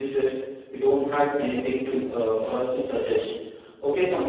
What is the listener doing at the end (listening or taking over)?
listening